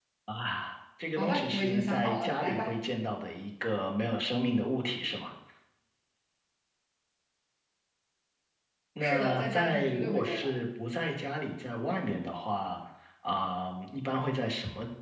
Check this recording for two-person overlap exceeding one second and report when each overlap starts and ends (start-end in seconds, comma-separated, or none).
1.1-2.7, 9.0-10.5